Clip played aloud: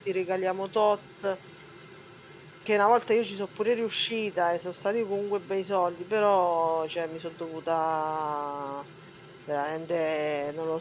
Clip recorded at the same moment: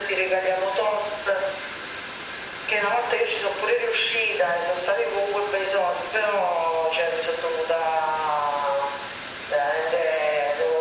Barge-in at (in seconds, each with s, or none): none